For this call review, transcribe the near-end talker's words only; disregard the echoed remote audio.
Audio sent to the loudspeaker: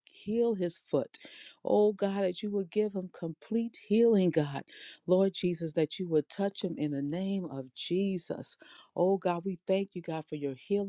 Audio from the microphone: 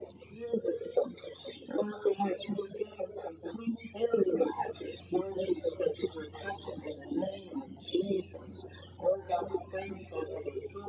none

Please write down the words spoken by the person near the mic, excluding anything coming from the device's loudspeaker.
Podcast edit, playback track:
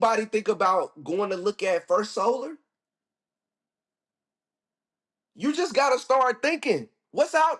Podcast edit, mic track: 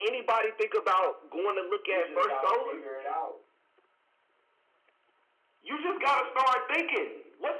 You just gotta figure it out.

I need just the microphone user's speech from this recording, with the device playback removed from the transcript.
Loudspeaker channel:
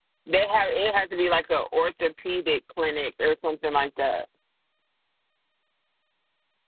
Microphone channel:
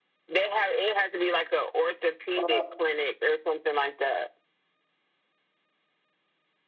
I

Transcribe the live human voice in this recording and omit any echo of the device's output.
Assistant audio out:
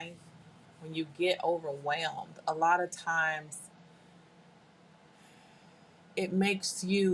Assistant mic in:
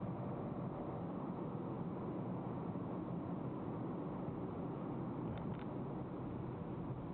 none

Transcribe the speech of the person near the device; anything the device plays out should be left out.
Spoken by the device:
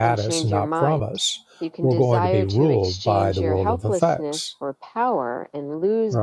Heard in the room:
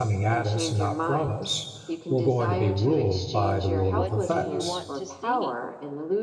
What do you want to see?

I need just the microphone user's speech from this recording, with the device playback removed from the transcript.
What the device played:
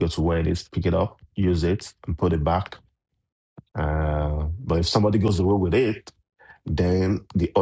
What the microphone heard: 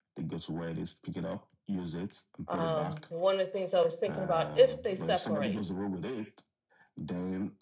um, one of the things I was thinking about if they separate,

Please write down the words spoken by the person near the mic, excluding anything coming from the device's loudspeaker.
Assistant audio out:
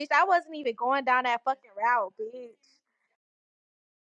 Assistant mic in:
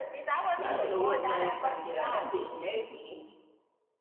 I don't know what Zaria trying to get at. That bitch messy.

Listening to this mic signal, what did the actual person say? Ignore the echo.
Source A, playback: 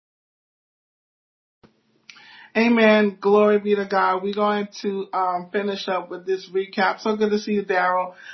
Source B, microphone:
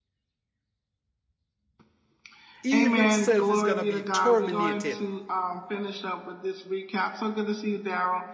Evil itself is going to be terminated,

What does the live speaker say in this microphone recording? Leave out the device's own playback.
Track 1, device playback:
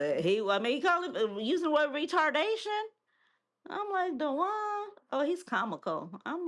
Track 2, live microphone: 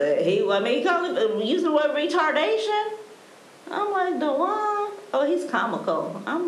none

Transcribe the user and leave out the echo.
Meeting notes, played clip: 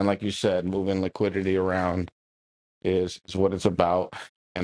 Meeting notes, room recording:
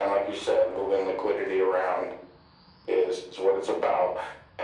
none

